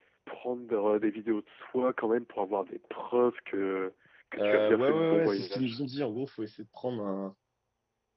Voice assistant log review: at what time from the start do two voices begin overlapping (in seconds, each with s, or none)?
4.4 s